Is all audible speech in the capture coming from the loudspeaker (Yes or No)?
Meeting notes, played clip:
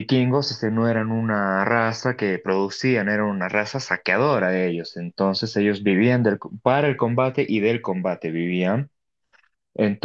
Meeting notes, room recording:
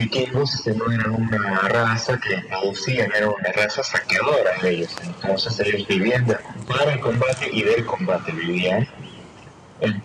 Yes